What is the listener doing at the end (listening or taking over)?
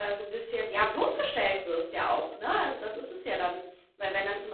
listening